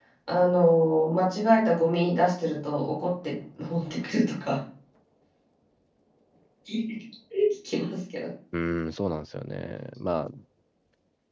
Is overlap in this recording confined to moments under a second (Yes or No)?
Yes